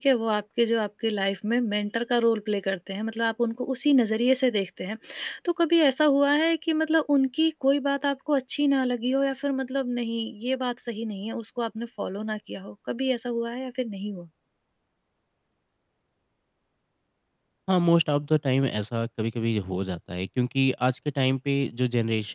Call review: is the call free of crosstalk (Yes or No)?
Yes